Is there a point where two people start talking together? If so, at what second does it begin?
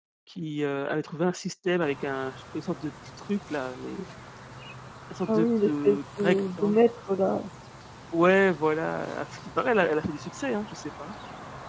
5.3 s

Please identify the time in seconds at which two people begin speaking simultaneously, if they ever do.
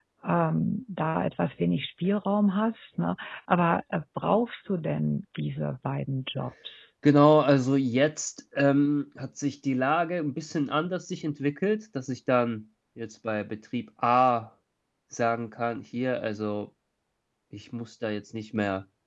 none

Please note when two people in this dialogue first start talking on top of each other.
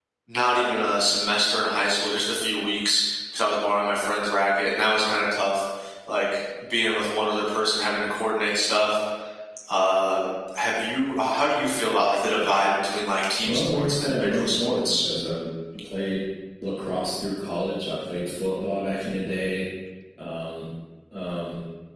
13.4 s

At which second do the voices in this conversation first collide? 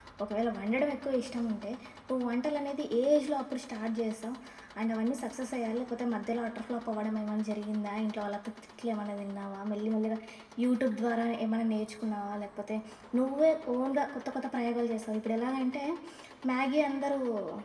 none

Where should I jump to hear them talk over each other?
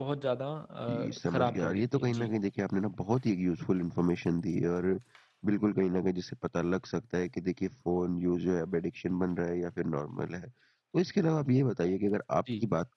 0.9 s

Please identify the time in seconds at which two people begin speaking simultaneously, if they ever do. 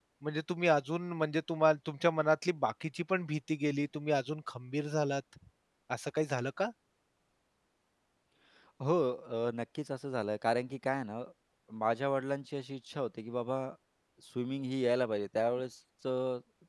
none

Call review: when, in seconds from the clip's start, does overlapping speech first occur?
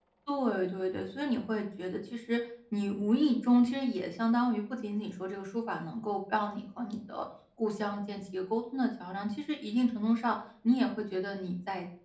none

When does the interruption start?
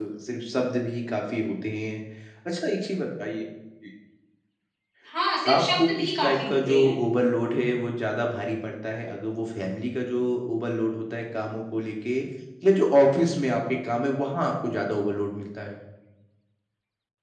5.5 s

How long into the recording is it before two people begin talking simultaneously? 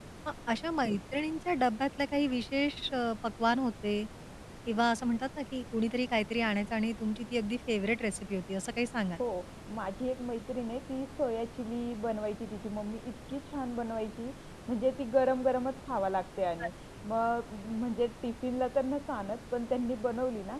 none

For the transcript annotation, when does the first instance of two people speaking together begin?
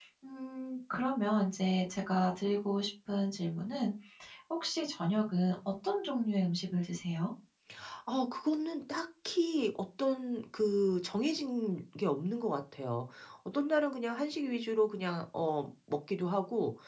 none

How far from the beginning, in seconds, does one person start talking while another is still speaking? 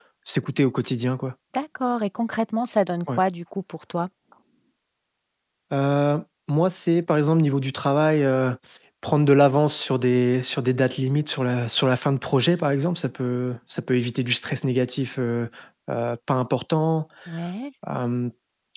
none

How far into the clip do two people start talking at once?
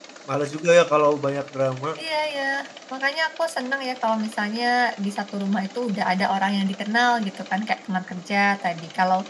none

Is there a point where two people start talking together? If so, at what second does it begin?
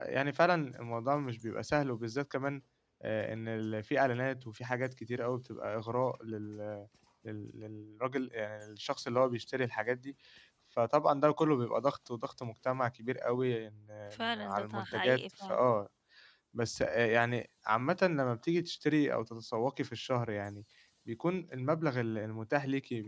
14.1 s

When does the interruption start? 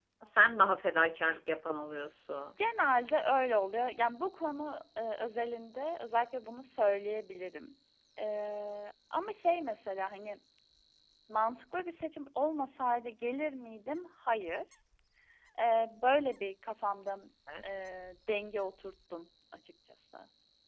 none

